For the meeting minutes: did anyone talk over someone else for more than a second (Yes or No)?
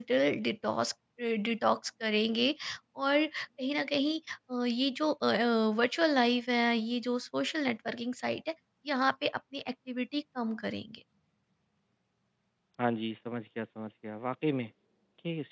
No